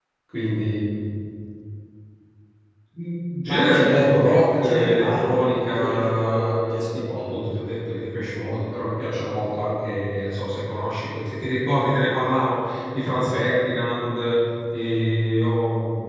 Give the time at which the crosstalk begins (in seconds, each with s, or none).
3.5 s